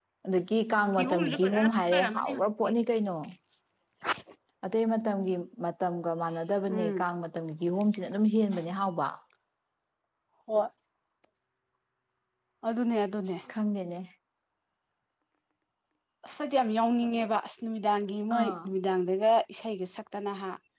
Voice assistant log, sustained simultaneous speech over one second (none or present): present